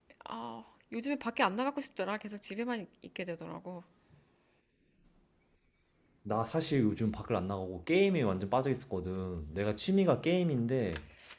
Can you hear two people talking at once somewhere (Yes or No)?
No